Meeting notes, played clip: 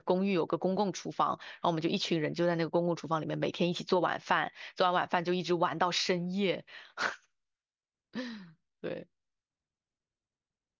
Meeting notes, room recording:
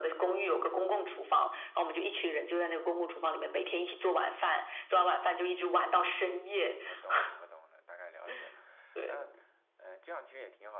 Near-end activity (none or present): present